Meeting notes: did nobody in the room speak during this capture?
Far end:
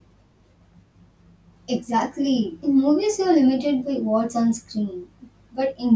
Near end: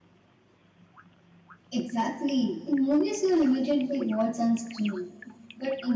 Yes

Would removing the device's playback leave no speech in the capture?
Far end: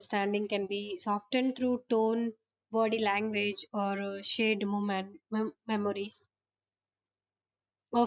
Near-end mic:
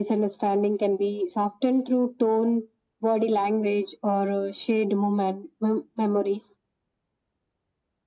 Yes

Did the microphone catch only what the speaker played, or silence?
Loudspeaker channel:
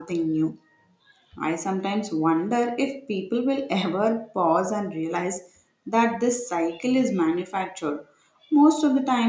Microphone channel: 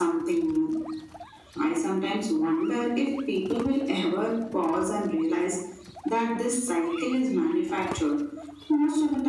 Yes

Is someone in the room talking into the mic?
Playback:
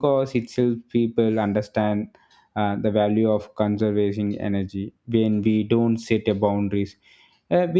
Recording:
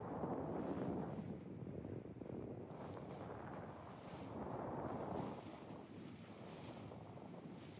No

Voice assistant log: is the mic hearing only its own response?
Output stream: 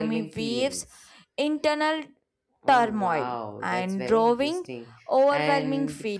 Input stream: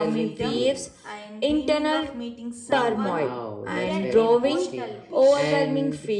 No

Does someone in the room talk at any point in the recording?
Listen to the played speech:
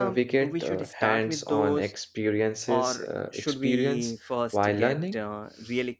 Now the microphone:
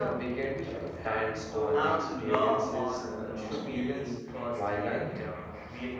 Yes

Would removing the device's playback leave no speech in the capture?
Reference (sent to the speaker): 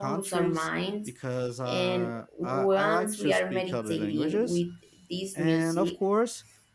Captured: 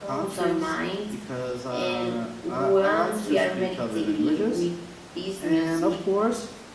Yes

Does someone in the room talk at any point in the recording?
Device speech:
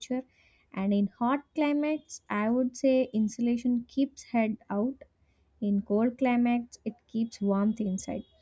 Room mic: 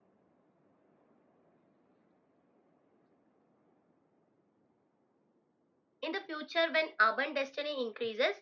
Yes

